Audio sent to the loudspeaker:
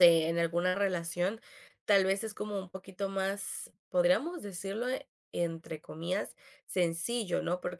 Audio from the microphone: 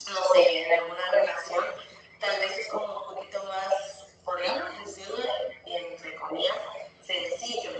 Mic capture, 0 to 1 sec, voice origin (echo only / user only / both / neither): echo only